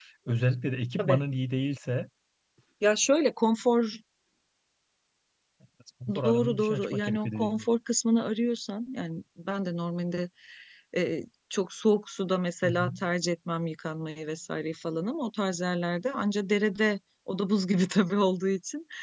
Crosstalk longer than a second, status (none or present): present